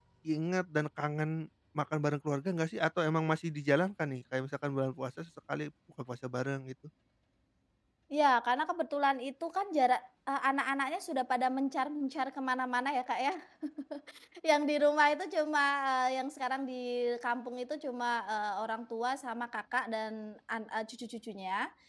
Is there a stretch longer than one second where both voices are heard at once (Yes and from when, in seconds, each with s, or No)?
No